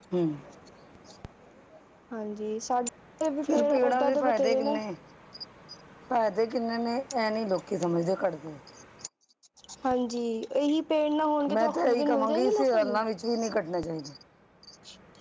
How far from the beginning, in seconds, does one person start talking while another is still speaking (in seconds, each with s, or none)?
3.4 s